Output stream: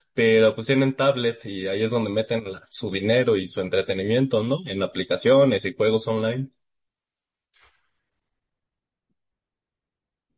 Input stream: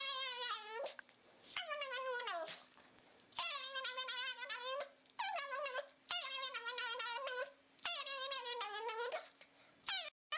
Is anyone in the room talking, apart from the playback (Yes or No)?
No